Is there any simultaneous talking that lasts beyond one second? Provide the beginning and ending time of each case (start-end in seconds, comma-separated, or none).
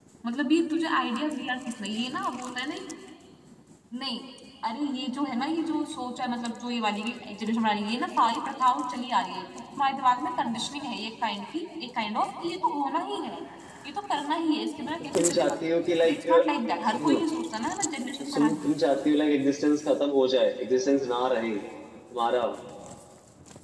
none